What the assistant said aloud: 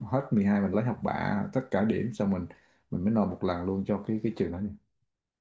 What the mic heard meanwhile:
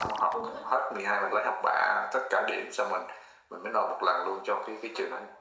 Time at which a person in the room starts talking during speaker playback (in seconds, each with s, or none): 0.3 s